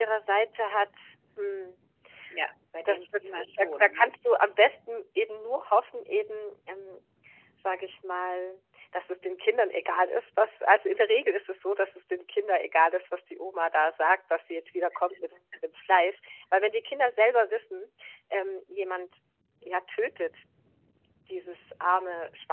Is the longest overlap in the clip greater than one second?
Yes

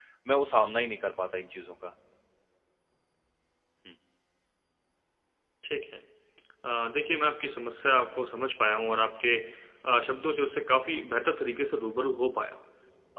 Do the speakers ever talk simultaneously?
No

